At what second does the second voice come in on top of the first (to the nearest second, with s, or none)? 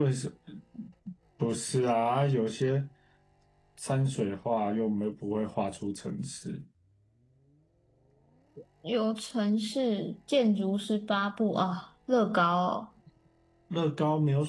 none